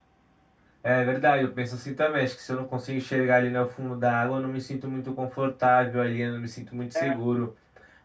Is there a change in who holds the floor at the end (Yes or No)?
No